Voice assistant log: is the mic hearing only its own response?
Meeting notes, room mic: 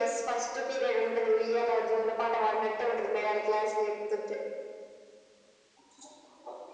Yes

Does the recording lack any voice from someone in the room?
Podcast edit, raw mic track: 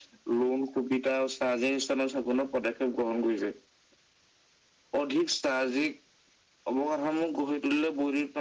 Yes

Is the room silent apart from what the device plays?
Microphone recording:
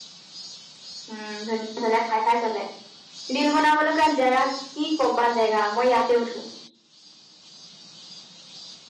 Yes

